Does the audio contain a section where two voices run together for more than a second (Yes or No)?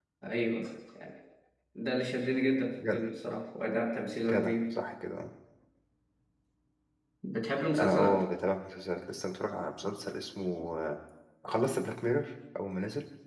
No